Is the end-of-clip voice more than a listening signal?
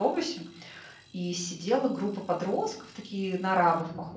No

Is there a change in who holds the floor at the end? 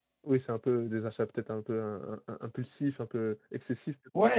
Yes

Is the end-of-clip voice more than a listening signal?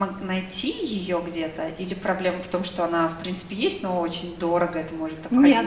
Yes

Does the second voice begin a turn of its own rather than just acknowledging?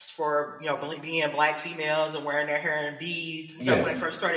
No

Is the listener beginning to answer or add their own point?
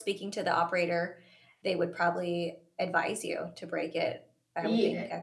Yes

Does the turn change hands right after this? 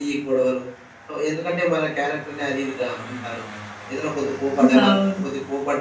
No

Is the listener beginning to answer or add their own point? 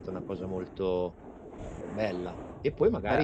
No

